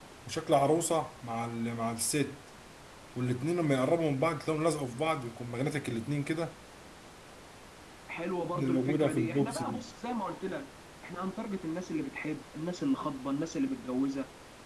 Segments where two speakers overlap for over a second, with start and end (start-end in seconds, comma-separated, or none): 8.6-9.8